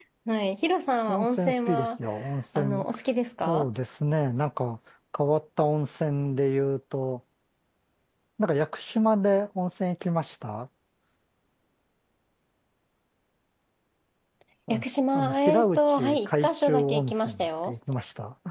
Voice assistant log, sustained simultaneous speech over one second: present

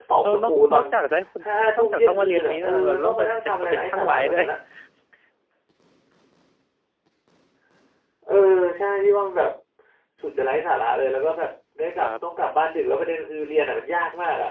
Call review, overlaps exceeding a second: present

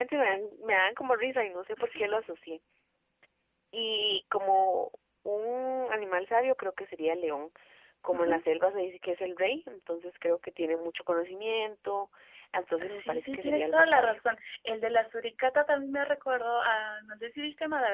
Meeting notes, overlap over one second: present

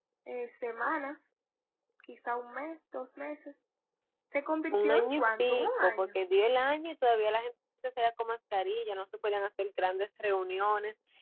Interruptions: present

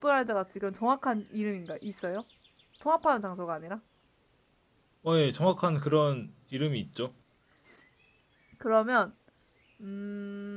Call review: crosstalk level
none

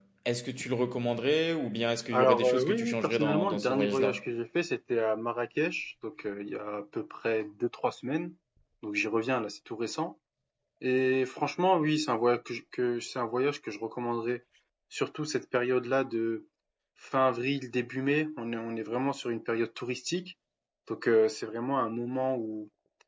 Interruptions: present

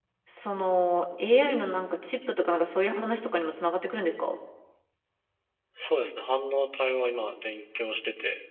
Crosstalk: none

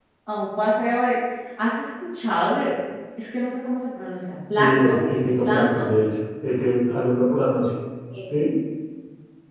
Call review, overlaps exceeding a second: none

